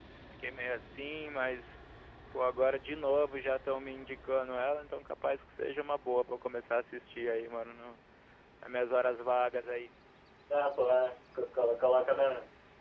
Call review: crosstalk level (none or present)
none